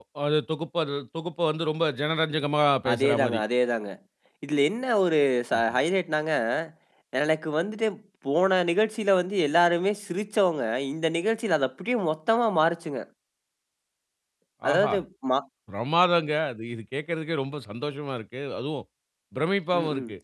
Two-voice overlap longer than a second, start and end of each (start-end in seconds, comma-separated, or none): none